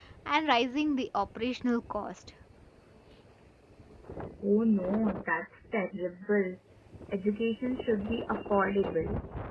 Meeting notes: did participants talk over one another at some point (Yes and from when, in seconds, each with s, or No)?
No